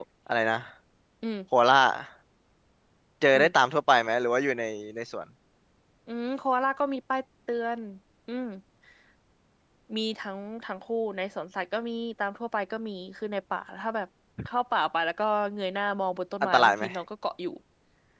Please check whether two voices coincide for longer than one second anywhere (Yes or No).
No